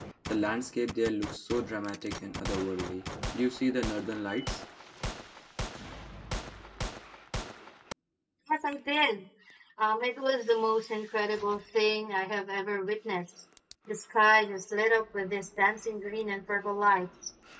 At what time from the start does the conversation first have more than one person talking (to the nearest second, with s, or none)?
none